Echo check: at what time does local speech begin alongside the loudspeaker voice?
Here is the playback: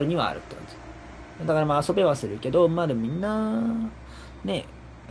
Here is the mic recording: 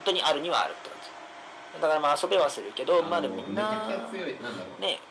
2.9 s

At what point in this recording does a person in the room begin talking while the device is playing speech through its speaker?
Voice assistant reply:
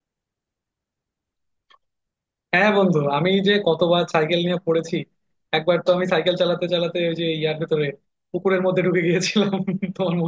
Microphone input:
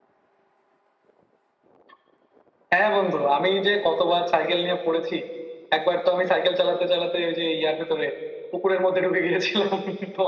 none

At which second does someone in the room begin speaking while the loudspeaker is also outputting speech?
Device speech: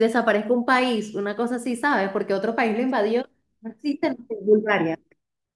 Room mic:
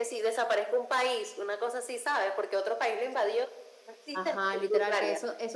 4.1 s

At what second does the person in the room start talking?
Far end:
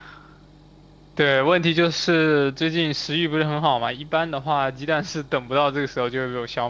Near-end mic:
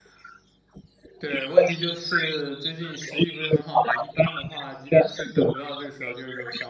none

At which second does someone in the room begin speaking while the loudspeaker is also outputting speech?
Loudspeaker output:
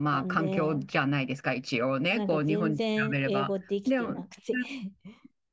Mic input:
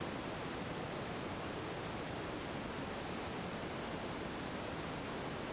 none

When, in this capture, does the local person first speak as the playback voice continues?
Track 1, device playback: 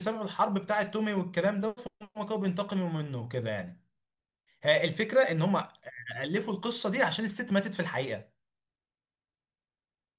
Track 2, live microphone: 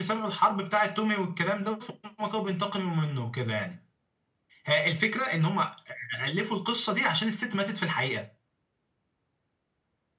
none

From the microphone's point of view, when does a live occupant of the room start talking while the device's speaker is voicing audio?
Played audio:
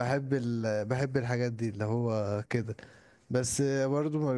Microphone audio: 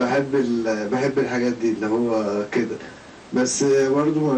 none

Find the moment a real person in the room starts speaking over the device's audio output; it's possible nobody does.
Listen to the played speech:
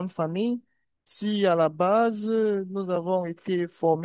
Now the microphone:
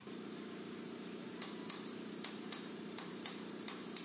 none

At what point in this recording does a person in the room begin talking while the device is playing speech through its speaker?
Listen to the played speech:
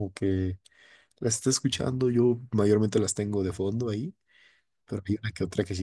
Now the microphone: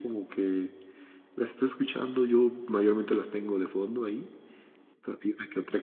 none

